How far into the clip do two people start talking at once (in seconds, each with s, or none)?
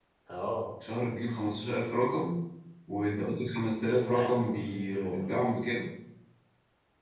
4.0 s